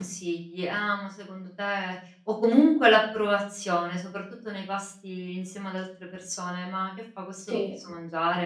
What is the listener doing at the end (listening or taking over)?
listening